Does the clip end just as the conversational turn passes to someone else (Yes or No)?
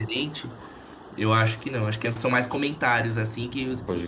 No